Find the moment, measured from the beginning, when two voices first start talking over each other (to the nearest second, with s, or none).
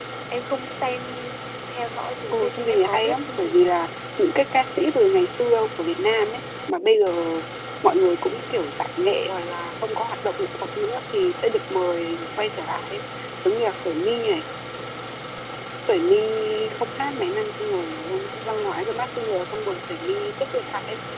2 s